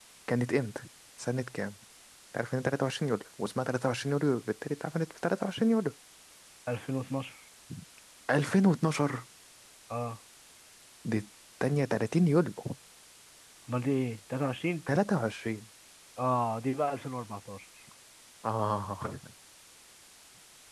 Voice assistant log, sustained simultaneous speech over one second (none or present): none